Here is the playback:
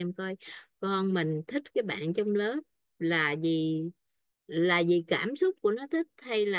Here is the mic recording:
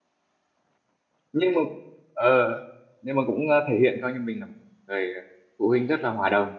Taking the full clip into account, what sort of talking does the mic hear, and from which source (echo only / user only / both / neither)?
user only